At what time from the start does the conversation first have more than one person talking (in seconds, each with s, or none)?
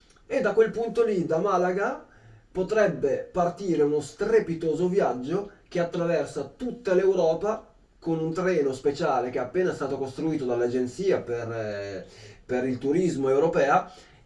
none